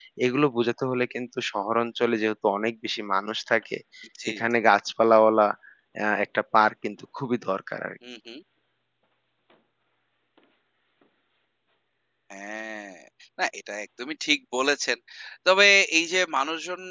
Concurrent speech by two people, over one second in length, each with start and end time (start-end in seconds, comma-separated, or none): none